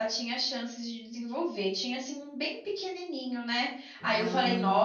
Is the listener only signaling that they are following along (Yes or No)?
Yes